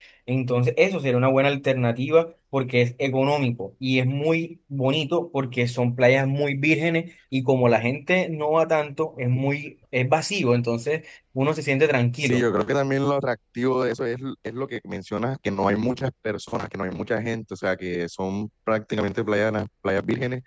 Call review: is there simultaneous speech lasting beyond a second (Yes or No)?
No